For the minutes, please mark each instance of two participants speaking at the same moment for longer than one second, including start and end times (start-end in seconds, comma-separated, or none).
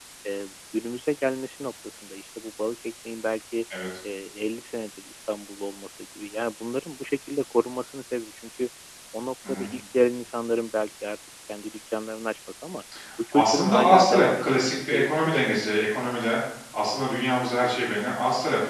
13.3-15.8